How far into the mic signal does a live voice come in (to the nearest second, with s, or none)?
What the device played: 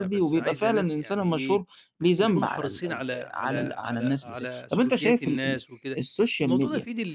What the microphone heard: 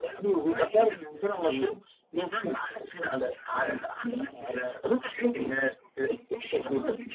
none